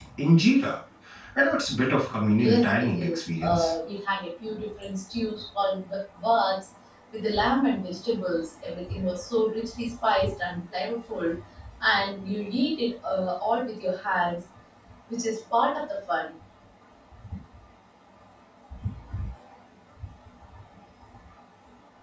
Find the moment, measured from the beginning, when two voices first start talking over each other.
2.4 s

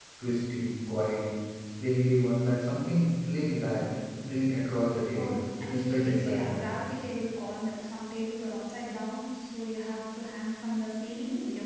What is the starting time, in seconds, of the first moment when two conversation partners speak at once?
5.2 s

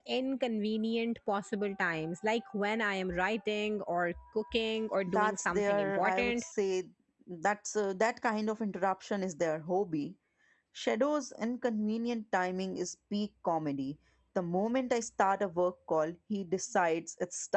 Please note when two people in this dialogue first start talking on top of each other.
5.1 s

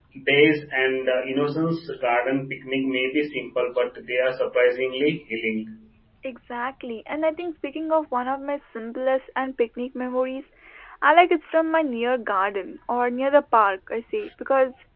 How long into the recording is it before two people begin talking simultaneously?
none

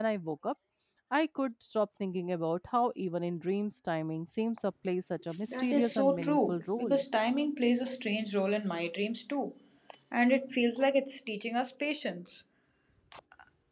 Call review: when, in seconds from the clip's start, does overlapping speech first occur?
5.3 s

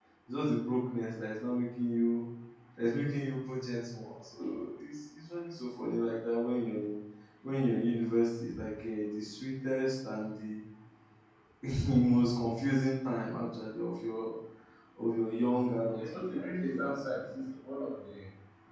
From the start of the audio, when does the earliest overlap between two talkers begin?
15.9 s

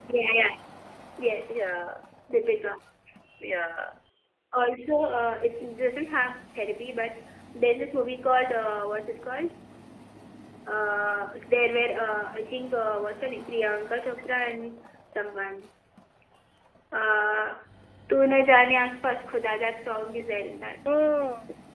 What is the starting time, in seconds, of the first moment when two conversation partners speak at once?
none

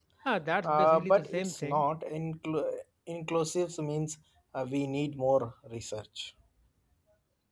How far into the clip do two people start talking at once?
0.6 s

